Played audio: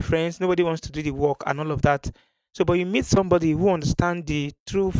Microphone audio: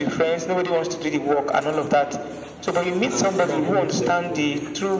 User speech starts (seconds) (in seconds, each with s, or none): 3.2 s